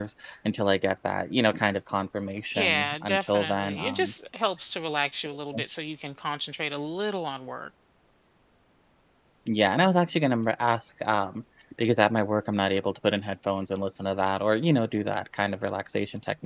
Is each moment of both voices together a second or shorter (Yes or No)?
No